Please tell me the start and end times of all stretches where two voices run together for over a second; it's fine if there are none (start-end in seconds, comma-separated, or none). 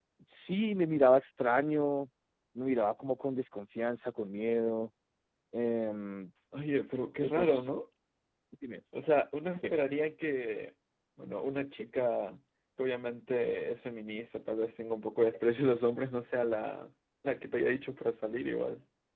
none